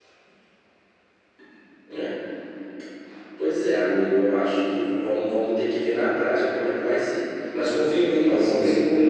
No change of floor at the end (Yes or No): Yes